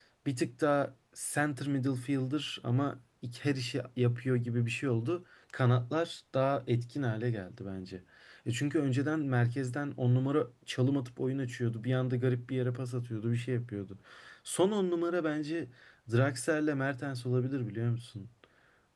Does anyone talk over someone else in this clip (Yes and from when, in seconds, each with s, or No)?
No